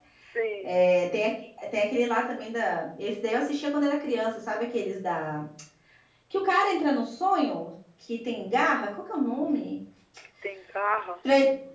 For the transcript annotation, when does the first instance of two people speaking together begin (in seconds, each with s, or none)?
none